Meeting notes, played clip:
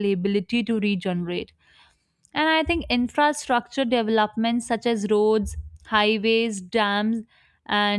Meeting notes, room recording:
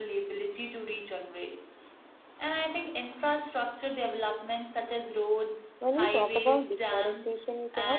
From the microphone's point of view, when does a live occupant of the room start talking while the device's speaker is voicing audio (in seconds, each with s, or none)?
5.8 s